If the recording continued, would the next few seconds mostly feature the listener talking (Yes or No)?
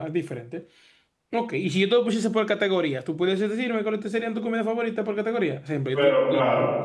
No